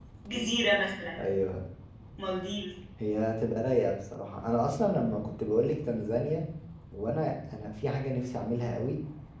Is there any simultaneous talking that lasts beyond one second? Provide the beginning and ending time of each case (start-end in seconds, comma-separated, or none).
none